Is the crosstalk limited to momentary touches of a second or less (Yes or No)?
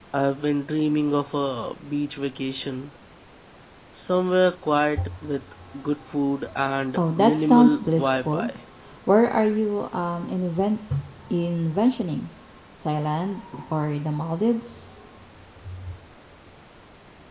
No